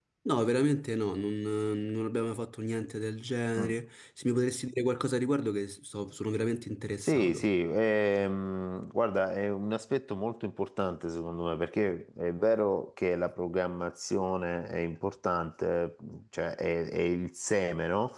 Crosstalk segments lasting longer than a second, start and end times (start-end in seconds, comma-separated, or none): none